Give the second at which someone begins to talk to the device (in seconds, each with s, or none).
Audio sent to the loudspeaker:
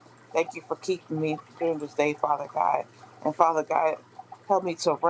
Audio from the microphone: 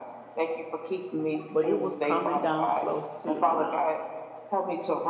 1.5 s